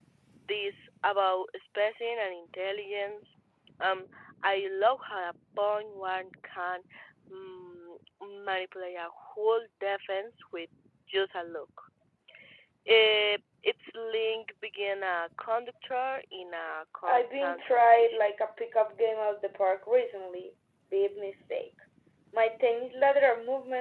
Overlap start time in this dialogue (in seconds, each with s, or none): 17.0 s